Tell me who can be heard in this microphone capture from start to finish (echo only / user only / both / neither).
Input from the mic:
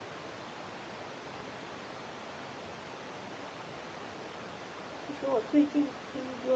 user only